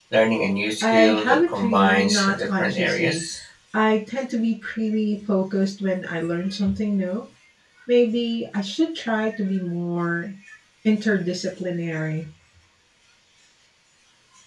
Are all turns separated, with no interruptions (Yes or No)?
No